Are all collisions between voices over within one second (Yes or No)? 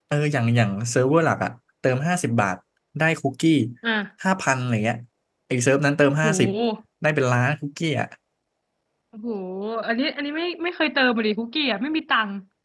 Yes